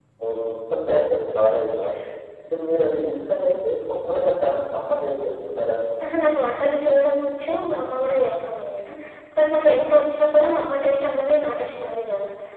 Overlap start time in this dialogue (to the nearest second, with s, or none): none